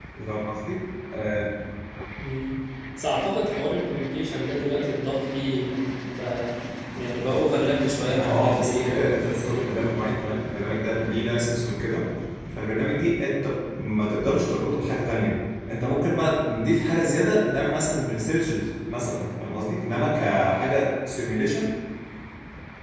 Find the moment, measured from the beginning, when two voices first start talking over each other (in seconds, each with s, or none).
8.1 s